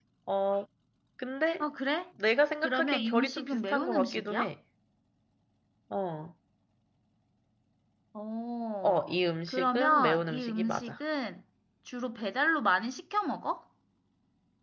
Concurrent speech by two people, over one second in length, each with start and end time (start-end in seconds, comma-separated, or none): 2.6-4.5, 9.5-11.0